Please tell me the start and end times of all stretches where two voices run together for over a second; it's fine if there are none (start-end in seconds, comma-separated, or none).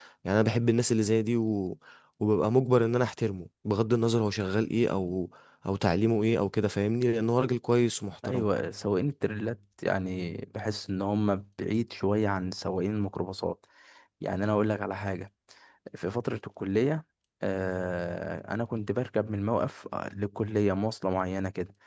none